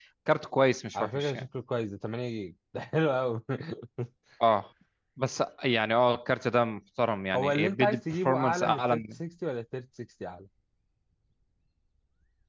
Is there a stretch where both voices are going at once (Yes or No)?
Yes